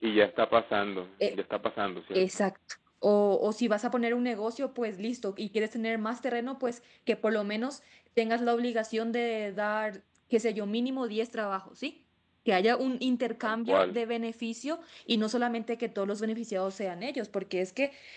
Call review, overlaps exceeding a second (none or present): none